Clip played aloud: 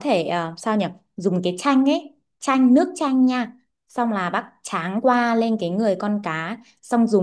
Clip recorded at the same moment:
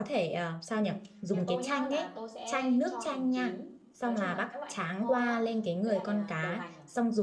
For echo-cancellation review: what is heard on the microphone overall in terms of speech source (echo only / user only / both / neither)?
both